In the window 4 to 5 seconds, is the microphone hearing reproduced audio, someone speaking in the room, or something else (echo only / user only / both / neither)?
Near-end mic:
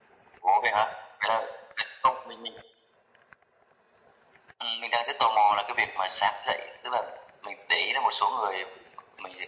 echo only